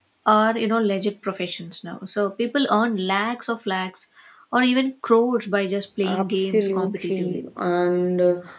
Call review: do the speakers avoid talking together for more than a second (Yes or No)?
No